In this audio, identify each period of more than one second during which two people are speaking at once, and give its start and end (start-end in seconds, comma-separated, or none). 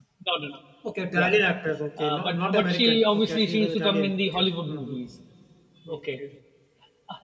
2.0-5.0